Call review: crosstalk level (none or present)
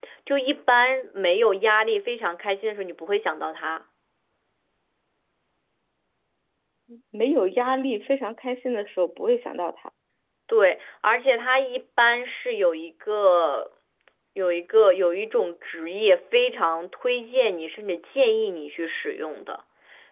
none